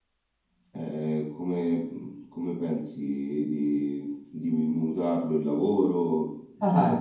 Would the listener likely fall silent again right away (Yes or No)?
No